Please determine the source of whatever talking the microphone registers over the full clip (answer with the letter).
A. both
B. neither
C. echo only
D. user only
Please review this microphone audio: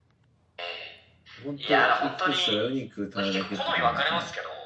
A